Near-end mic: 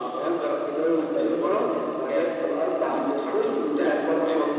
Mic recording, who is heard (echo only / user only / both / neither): echo only